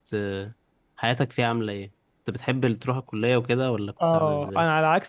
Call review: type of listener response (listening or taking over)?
taking over